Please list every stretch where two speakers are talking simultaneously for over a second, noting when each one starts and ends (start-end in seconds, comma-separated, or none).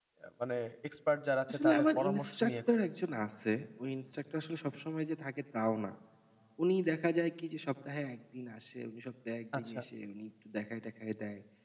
1.5-2.9